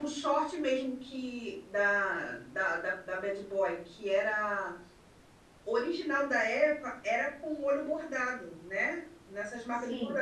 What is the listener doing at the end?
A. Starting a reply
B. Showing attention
B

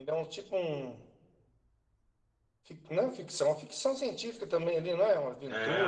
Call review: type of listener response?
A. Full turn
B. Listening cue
A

